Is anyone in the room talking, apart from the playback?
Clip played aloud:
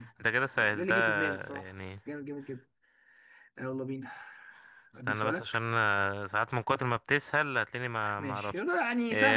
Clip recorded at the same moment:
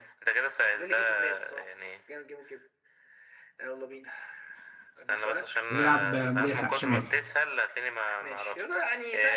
Yes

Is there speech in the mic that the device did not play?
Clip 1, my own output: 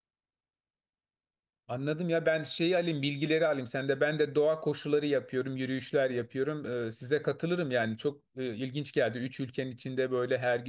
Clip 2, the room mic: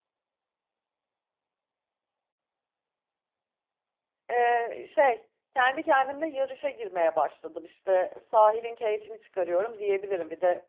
Yes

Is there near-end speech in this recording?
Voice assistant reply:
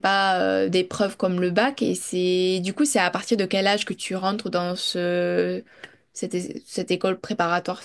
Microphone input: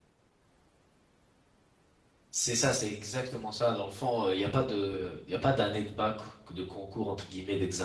Yes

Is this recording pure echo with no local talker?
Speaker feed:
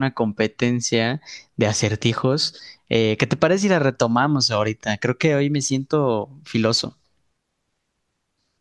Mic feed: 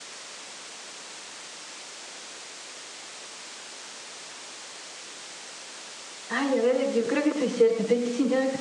No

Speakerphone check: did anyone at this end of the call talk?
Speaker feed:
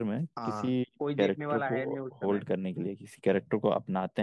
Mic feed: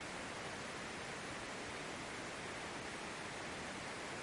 No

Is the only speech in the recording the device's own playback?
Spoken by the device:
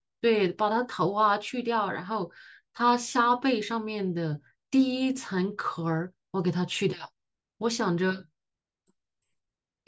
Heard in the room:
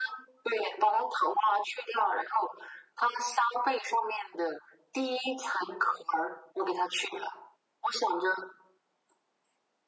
Yes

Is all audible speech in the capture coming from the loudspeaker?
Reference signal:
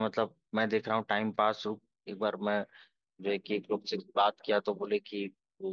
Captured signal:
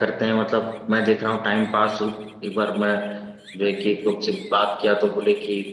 Yes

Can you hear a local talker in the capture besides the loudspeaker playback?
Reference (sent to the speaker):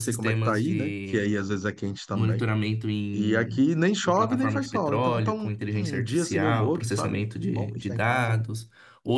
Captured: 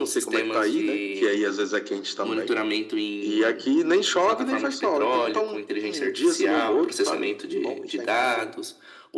No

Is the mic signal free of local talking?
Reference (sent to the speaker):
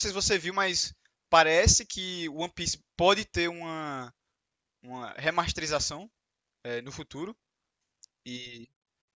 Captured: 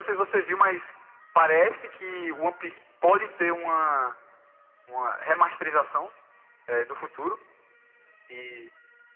Yes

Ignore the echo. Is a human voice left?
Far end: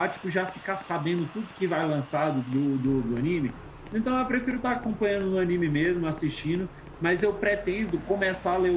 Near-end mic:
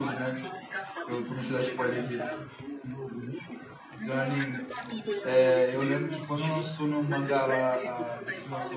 Yes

